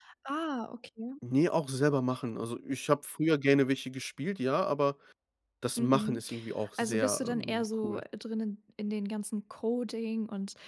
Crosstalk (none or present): present